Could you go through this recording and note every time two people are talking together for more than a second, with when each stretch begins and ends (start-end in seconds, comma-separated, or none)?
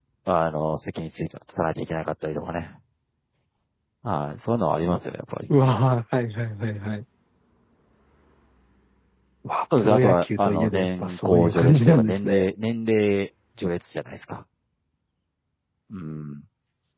9.8-12.4